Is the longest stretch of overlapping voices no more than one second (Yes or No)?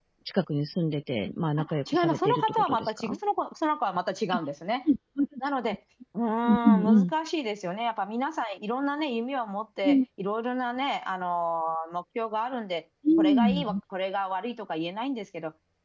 No